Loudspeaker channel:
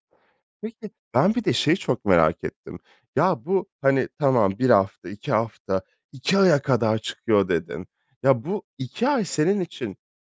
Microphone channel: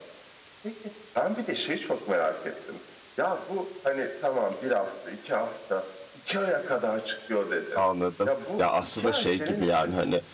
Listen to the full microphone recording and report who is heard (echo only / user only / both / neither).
both